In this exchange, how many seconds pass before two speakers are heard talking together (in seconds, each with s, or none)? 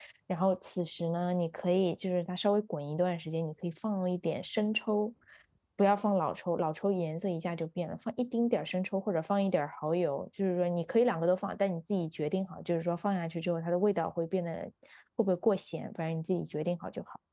none